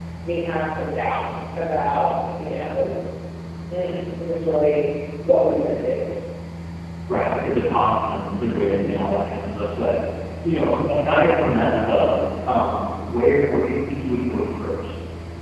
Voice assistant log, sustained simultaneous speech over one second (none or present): none